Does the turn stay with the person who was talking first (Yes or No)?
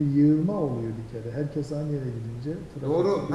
No